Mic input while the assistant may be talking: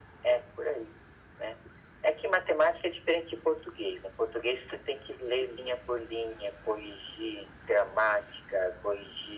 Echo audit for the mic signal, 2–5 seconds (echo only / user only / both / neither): echo only